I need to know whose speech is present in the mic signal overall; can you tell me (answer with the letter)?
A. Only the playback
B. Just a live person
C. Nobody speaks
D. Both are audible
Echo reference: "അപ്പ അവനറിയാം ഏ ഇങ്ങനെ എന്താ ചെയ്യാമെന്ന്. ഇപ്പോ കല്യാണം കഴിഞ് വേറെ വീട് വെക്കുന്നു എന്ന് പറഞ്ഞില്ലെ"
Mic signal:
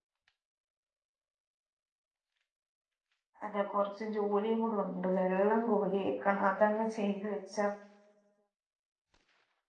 B